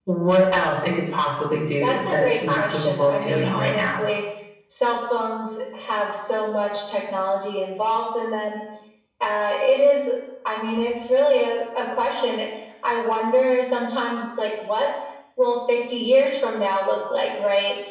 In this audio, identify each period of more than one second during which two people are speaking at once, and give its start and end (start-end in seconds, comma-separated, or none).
1.8-3.9